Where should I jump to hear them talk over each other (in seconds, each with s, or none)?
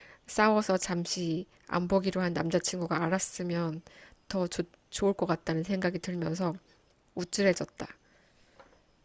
none